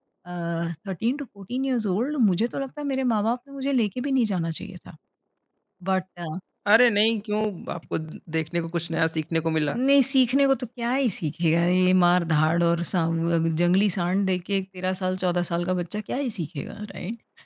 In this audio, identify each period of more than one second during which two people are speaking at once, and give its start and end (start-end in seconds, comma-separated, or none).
none